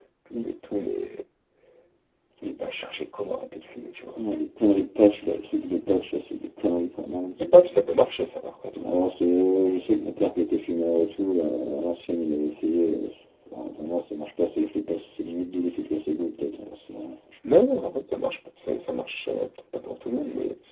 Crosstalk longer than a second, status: none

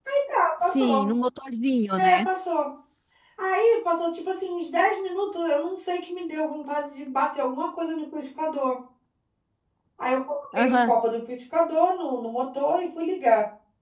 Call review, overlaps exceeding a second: none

